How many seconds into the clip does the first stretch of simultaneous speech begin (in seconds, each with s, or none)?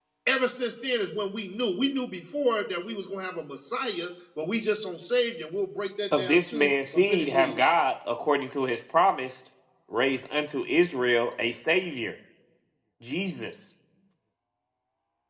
6.1 s